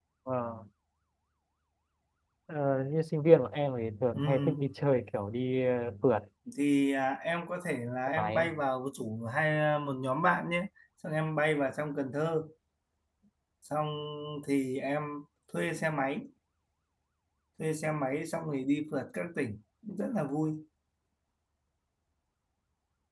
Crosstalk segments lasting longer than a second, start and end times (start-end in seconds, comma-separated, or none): none